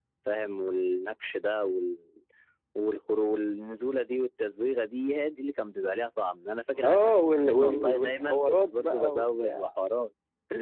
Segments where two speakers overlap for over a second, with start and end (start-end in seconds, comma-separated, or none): 6.8-9.6